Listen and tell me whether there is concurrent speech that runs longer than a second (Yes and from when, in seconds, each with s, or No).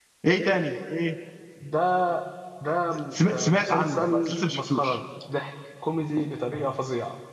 Yes, from 3.3 s